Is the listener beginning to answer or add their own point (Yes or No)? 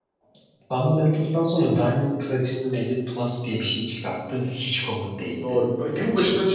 Yes